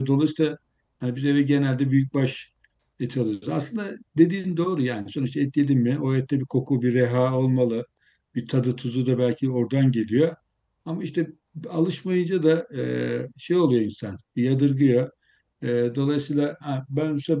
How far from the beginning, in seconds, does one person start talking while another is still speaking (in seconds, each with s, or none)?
none